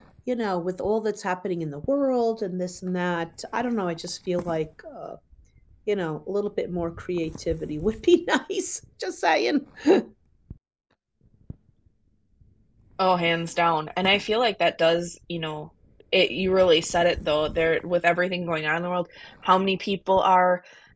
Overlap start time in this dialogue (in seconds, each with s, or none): none